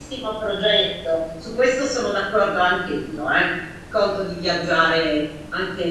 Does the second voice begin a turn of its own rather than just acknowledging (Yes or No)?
No